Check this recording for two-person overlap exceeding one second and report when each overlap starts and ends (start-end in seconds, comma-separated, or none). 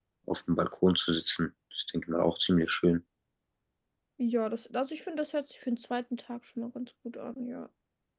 none